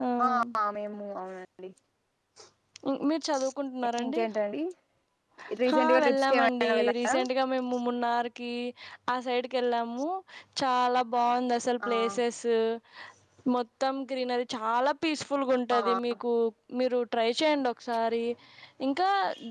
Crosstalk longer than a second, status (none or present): present